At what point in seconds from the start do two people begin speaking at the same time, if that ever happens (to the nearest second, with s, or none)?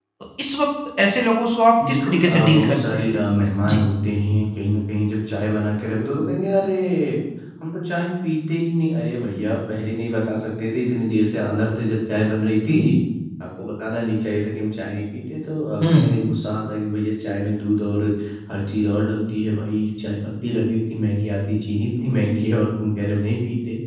2 s